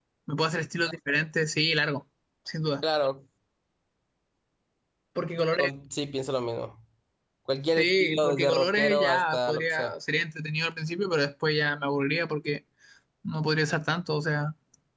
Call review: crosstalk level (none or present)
present